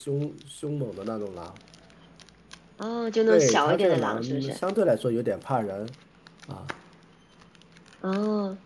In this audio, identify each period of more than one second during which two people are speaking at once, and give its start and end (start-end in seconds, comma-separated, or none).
3.3-4.6